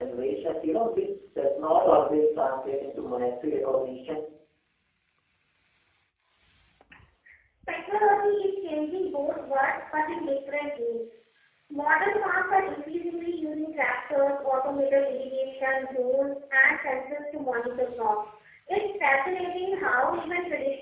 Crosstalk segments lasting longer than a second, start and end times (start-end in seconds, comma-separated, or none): none